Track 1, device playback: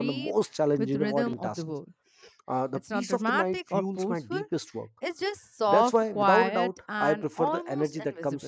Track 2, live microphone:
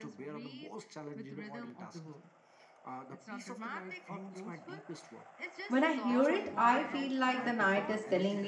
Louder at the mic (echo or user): user